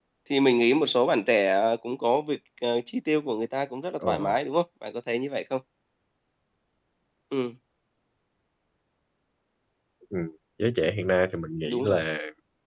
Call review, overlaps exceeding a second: none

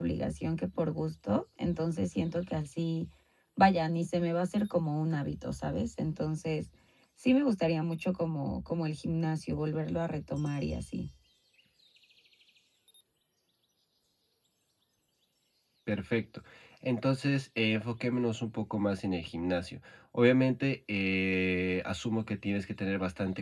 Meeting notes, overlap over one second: none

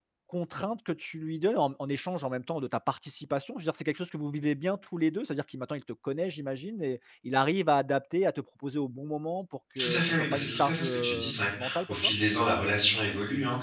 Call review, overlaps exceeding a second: present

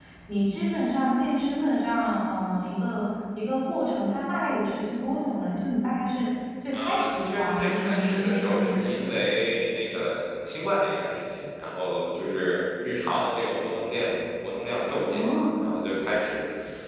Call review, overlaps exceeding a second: present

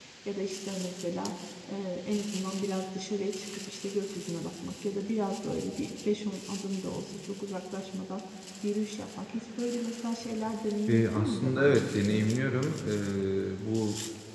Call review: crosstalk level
present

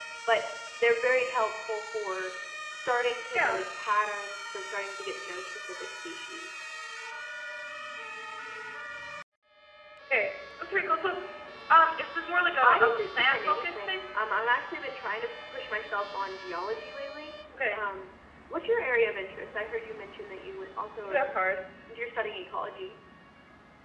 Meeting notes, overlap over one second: present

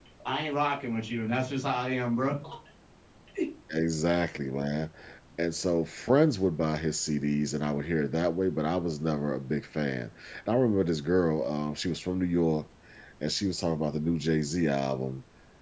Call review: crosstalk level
none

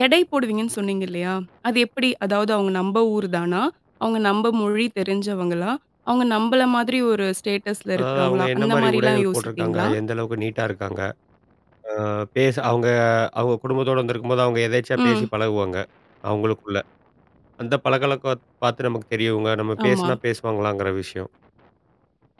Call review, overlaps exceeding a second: present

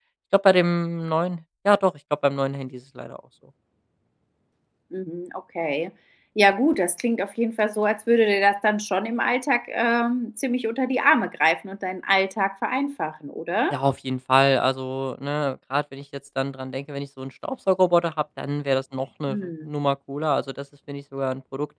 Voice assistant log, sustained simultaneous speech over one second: none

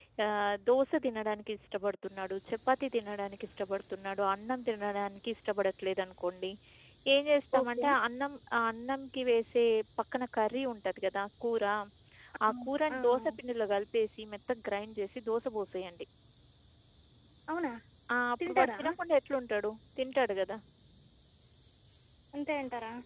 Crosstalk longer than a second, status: none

